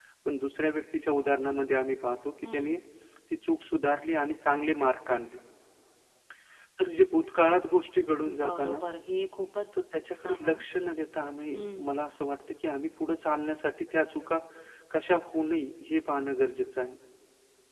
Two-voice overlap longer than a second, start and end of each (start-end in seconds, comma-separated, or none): none